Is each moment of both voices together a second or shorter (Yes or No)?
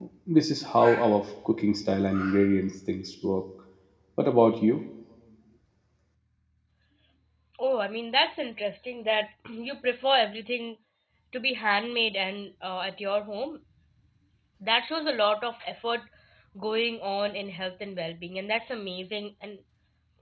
Yes